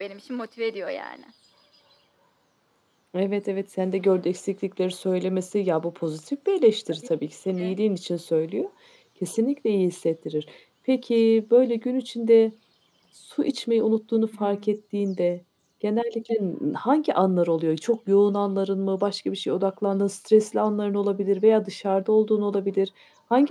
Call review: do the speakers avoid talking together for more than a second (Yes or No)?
Yes